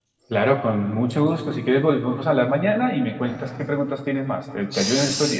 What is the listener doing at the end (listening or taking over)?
taking over